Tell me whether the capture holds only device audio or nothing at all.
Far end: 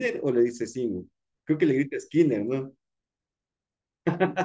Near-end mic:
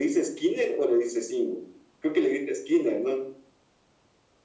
Yes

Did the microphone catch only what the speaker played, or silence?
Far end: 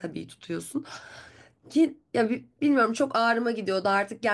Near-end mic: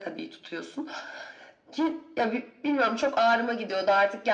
Yes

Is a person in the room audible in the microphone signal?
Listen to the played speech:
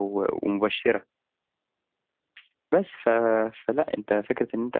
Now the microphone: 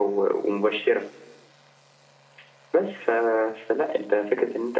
No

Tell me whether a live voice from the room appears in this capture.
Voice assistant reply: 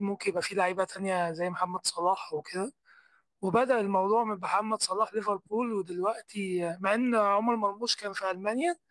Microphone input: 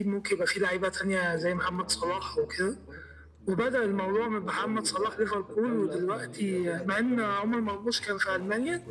Yes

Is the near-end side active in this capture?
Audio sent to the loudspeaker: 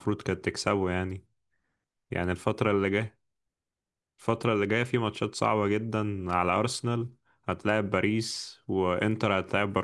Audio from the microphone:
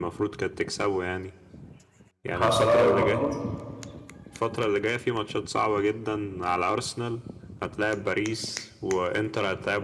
Yes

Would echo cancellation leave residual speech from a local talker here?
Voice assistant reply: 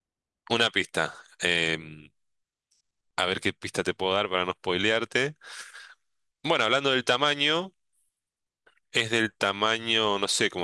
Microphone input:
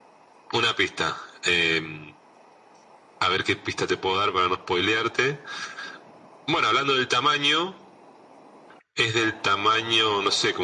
No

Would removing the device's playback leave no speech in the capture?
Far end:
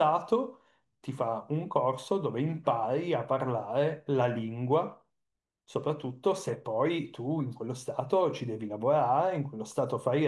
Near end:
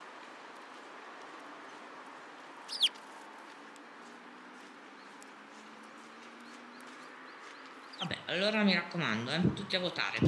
No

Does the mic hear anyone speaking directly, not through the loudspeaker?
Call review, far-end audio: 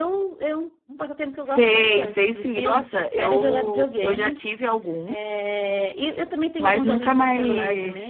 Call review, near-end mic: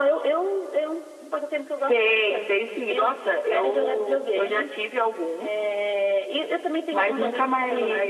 No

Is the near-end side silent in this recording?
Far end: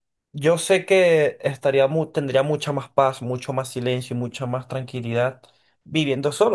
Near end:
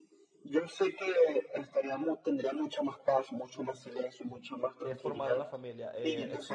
No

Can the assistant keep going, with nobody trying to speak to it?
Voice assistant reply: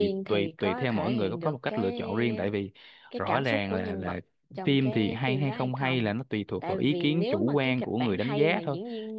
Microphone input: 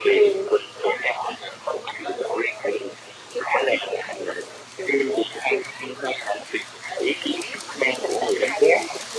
Yes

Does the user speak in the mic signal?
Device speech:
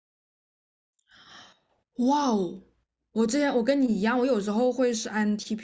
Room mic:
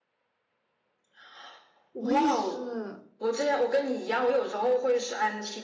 Yes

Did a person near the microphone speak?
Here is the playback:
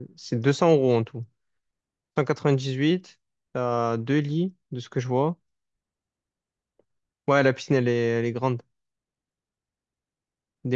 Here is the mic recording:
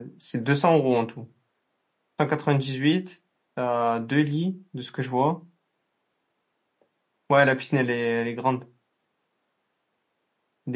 No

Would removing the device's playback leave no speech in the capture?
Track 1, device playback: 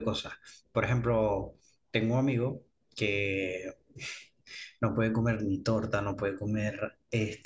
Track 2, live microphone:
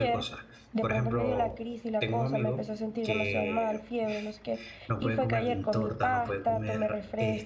No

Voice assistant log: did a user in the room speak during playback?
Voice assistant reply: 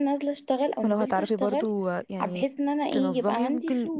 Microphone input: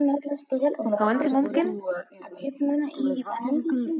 Yes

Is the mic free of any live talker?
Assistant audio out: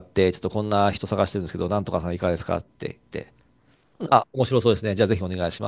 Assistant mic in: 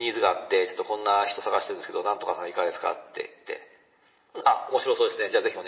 Yes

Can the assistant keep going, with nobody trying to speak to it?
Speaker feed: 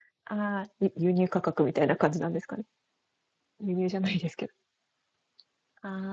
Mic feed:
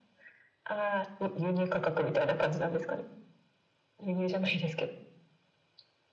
Yes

